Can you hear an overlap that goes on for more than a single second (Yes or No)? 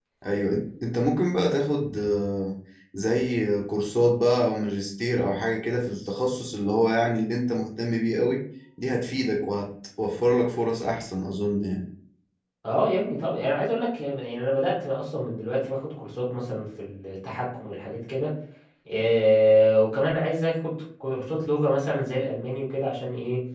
No